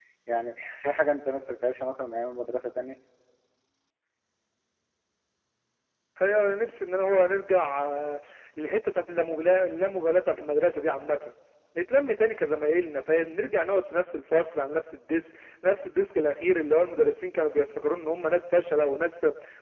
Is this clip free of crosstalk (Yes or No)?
Yes